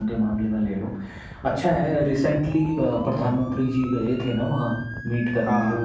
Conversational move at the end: listening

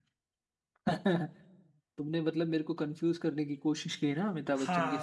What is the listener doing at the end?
taking over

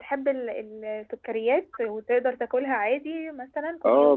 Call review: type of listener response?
taking over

